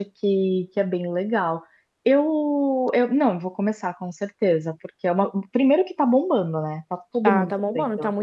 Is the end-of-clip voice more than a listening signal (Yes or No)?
Yes